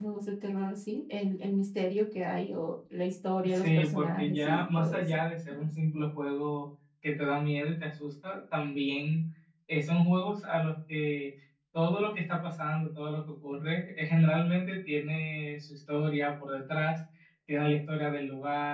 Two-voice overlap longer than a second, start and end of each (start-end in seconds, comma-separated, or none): 3.5-5.2